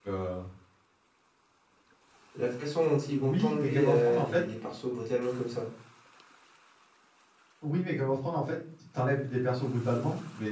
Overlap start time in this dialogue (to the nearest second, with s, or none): 3 s